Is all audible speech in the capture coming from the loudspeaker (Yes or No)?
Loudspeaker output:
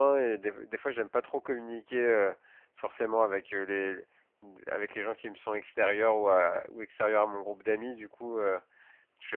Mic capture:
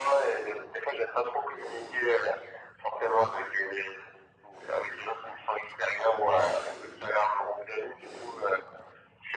Yes